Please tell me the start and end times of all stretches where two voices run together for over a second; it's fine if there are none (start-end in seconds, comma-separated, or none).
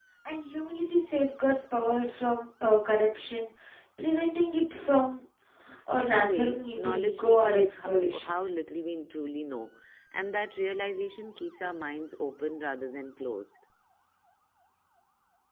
6.0-8.3